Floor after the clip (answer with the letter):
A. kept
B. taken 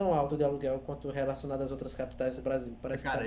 B